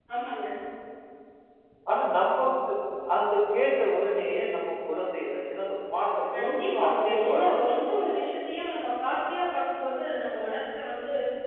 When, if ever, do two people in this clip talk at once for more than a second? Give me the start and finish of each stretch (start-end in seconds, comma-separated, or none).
6.3-7.6